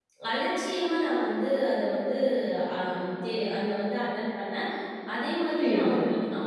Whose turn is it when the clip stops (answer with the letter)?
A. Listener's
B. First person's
A